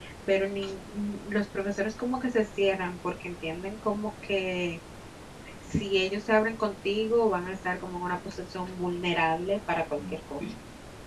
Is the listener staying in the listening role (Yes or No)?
No